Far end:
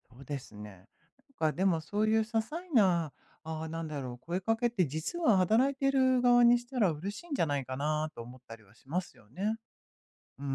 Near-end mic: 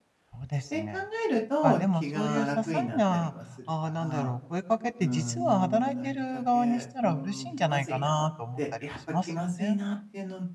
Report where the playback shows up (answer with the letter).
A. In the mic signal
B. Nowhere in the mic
A